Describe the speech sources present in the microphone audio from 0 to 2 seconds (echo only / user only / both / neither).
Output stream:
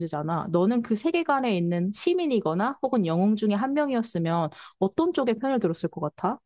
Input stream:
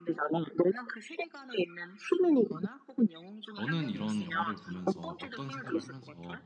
echo only